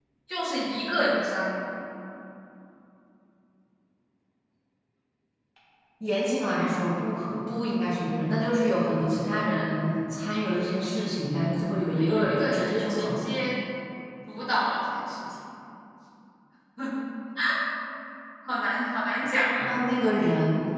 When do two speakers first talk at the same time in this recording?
11.9 s

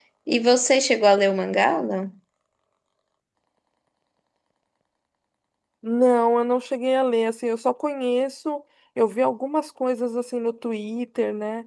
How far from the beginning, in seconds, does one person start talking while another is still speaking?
none

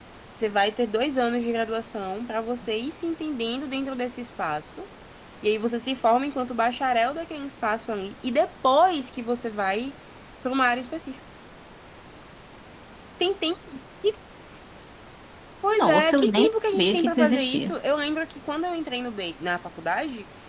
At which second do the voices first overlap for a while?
15.8 s

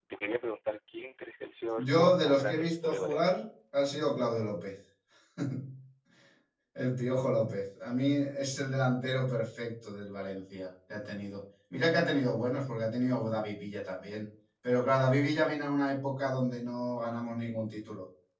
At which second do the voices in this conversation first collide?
1.8 s

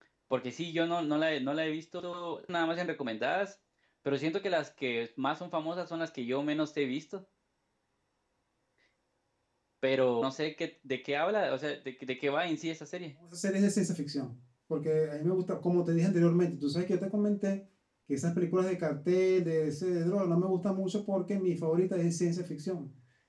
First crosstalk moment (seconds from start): none

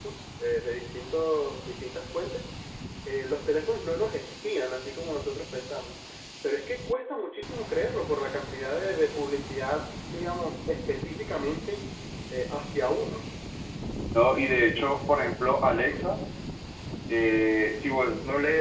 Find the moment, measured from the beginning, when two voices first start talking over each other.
none

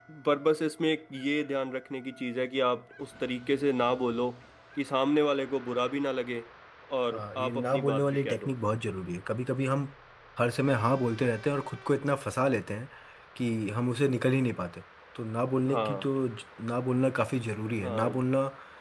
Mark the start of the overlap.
7.1 s

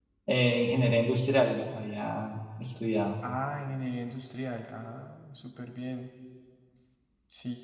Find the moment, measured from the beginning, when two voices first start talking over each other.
none

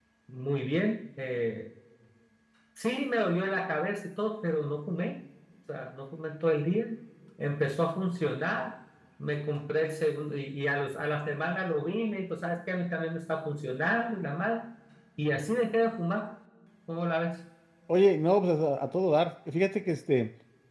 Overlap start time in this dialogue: none

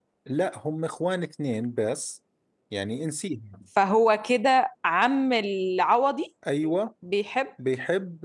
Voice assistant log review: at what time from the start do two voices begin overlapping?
none

